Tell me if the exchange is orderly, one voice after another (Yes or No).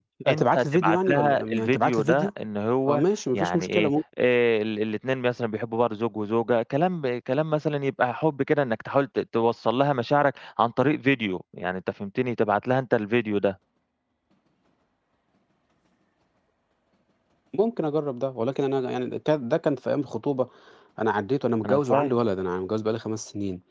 No